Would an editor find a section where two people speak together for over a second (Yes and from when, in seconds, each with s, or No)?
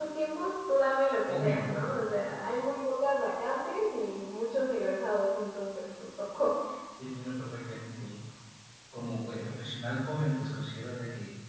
No